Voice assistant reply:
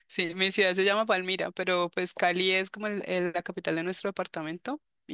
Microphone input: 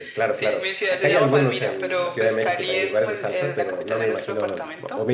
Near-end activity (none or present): present